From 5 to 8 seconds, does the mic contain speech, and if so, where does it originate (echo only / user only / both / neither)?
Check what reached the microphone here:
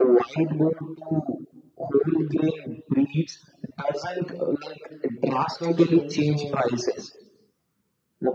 both